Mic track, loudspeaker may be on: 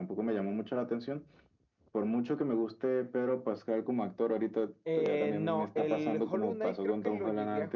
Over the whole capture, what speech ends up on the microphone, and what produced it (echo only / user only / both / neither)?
both